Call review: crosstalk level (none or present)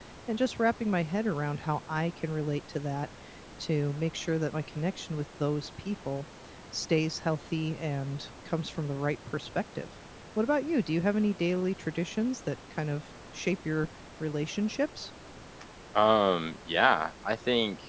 none